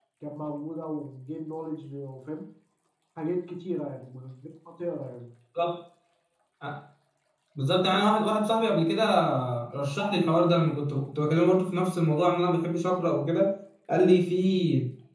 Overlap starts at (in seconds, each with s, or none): none